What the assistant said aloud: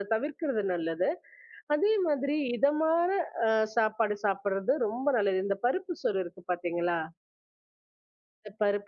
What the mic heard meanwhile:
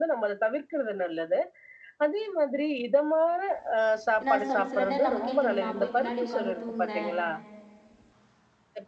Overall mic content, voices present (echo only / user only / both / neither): both